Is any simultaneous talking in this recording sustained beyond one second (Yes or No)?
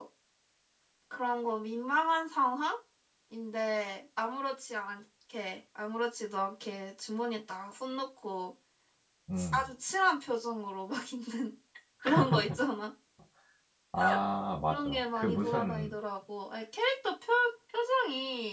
Yes